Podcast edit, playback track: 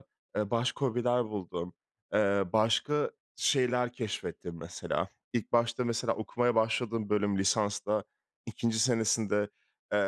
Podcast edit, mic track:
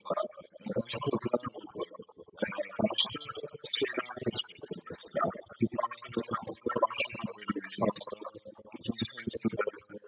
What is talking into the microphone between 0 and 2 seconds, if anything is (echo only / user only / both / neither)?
echo only